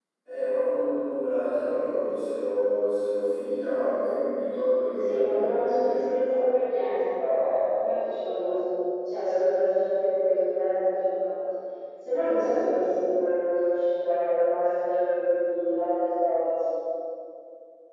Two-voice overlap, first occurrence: 5 s

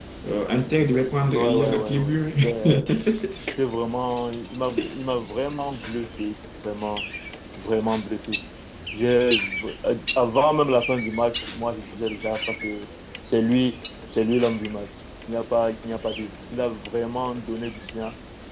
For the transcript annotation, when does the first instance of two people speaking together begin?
1 s

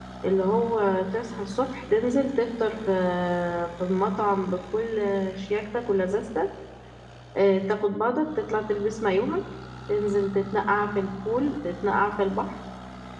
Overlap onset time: none

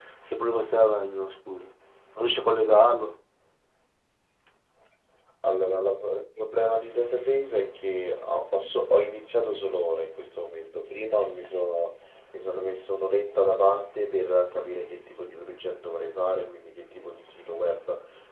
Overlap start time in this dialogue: none

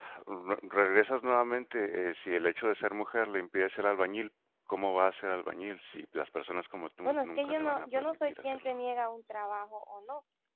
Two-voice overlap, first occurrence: 7 s

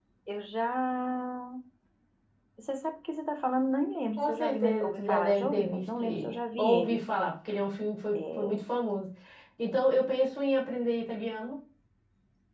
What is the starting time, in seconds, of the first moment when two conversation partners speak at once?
4 s

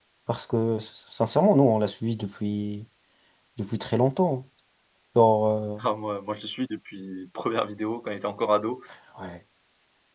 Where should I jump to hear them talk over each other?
none

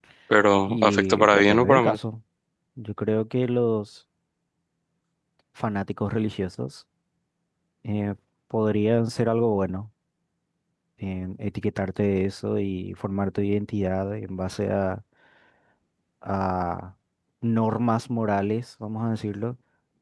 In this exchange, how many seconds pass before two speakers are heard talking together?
1 s

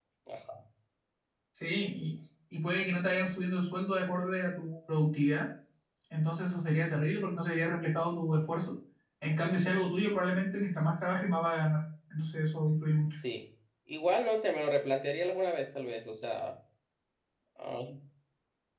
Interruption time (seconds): none

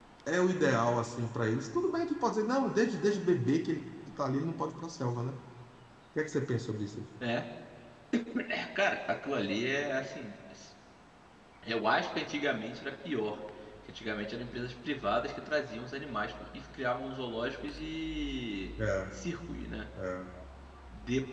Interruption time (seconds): none

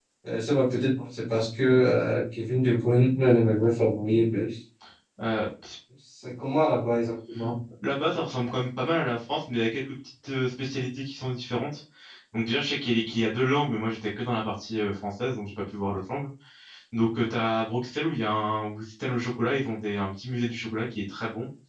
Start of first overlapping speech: none

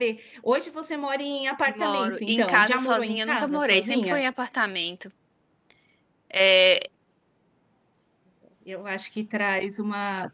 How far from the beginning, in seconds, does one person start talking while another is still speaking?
2 s

